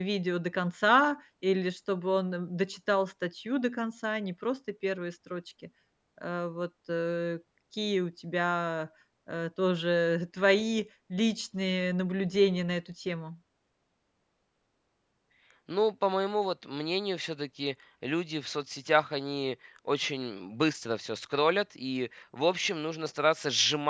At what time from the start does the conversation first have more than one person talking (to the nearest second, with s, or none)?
none